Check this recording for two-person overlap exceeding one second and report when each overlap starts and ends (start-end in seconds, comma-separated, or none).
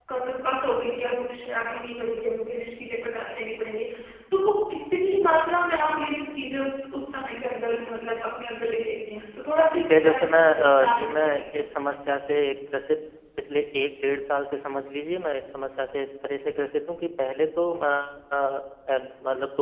9.7-11.4